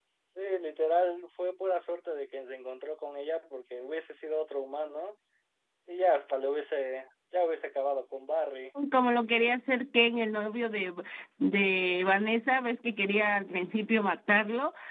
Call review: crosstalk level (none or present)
none